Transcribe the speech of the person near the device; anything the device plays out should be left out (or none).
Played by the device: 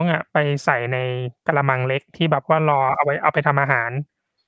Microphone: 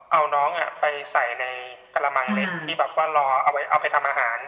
ค่ะ